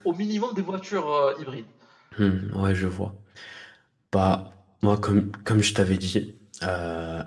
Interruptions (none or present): none